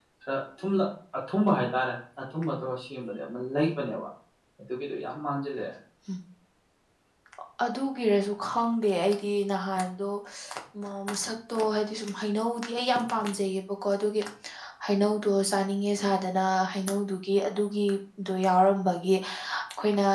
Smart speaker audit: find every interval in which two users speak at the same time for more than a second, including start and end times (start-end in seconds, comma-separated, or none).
none